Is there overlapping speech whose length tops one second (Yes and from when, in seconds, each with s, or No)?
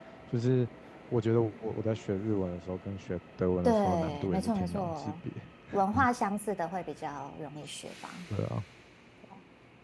Yes, from 3.6 s